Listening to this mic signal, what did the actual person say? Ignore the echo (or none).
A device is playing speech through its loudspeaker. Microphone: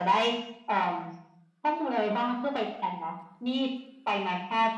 none